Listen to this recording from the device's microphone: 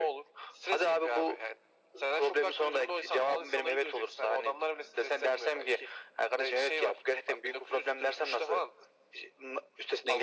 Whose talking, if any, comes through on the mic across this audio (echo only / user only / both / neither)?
echo only